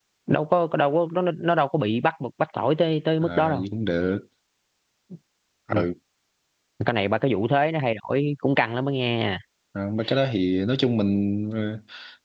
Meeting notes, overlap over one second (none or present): none